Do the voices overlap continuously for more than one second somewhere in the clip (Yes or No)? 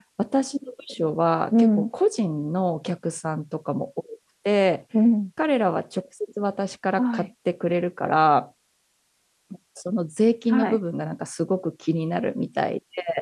No